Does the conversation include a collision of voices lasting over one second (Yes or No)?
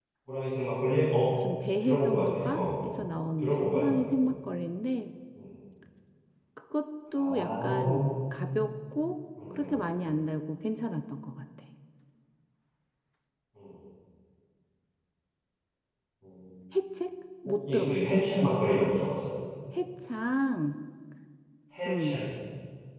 Yes